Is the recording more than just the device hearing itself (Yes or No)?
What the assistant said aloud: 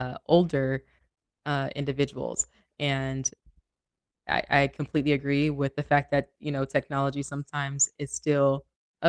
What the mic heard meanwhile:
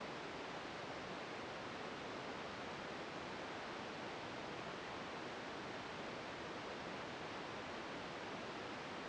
No